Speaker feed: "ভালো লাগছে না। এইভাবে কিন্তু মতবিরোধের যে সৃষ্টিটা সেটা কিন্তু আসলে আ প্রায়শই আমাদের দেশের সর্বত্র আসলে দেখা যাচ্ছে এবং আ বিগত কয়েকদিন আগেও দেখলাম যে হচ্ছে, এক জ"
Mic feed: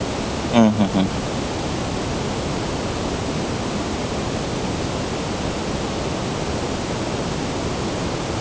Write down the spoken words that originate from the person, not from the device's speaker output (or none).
হুম, হুম, হুম।